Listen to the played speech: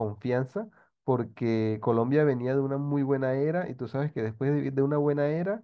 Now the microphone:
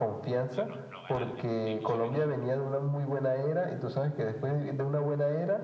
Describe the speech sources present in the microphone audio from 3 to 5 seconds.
echo only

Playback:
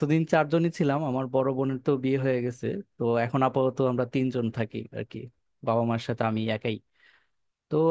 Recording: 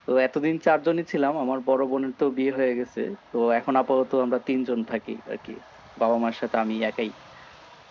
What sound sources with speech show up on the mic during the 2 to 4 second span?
echo only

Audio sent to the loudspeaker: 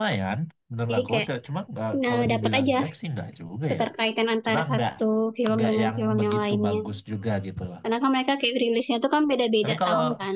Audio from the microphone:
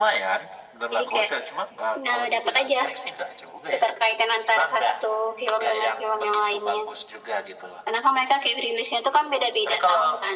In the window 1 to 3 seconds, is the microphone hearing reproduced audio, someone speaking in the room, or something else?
echo only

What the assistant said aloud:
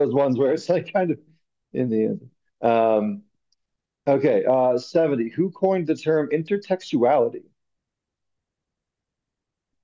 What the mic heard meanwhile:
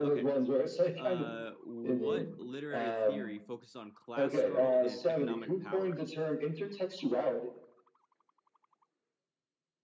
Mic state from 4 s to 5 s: both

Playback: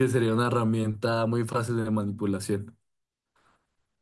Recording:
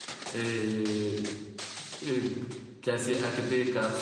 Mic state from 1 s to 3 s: user only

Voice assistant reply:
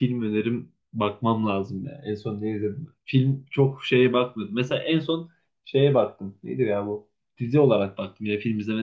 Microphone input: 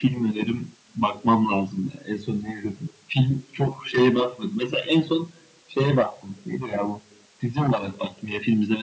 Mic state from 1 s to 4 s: echo only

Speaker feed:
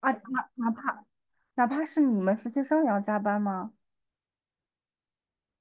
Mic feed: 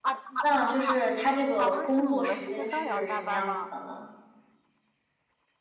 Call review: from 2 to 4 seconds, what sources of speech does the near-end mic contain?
both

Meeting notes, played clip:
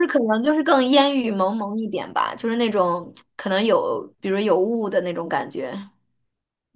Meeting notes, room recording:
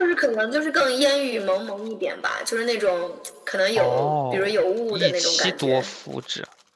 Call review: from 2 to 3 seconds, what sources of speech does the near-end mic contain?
echo only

